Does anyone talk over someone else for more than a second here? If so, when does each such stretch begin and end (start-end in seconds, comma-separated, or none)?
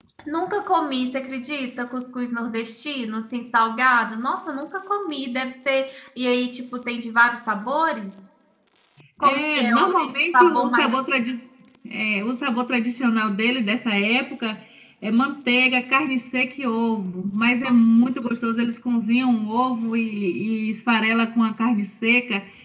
9.2-10.9